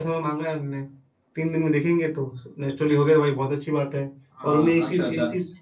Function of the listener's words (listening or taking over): taking over